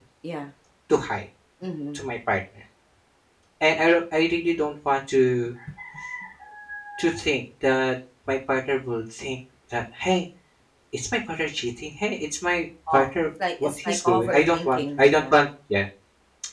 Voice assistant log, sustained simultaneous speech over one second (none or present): present